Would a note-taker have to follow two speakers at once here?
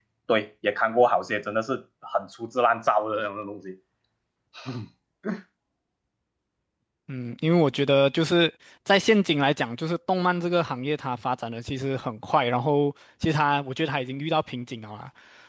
No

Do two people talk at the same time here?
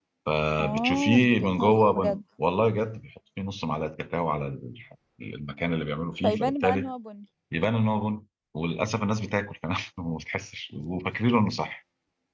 Yes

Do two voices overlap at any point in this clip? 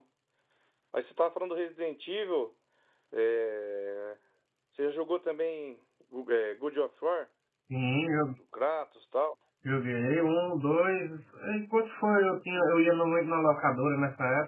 No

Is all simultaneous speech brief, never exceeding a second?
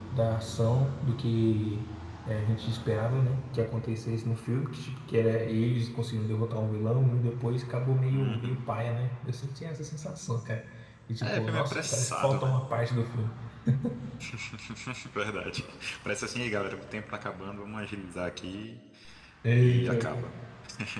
No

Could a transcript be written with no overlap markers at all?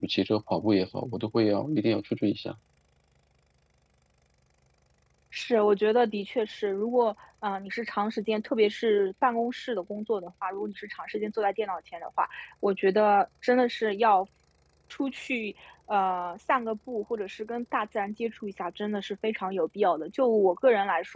Yes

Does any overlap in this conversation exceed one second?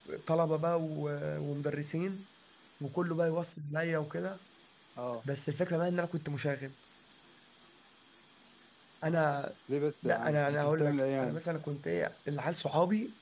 Yes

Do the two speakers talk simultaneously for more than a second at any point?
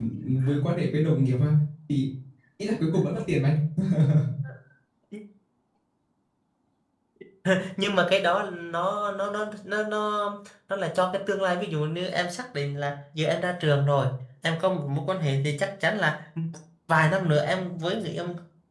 No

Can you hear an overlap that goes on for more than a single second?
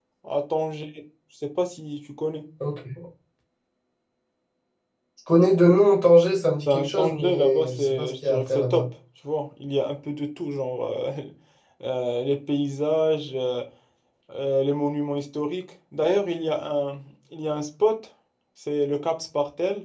Yes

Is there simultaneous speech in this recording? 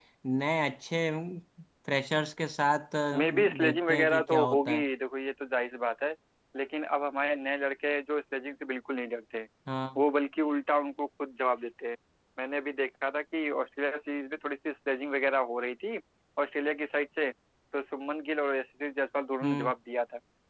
Yes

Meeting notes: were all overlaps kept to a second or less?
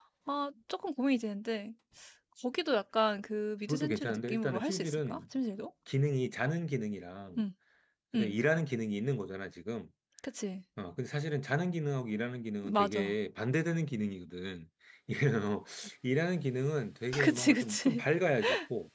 No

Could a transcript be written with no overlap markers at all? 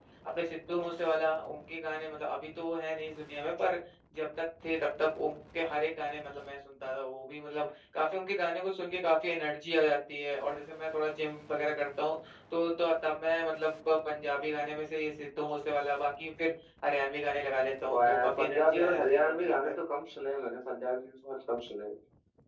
No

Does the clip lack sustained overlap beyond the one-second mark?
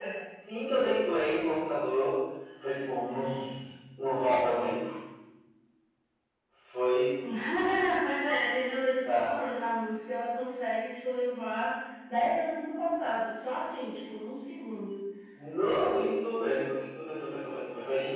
Yes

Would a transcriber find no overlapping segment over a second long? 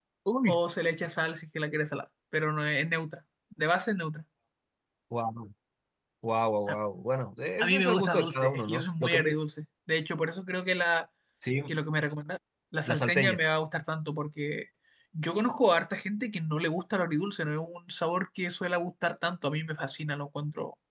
No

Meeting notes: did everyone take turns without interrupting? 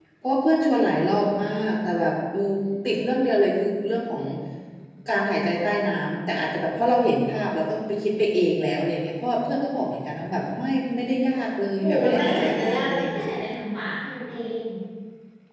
No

